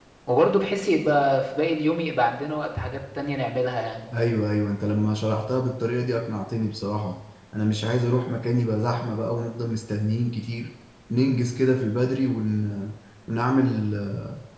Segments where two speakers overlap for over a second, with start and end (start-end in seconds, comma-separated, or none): none